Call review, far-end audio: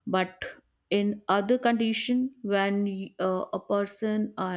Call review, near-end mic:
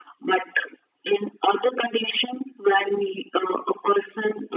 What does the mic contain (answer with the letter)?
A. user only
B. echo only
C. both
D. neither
B